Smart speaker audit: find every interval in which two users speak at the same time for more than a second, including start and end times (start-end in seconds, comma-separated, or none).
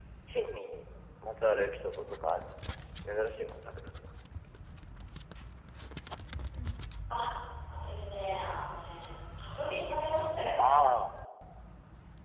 none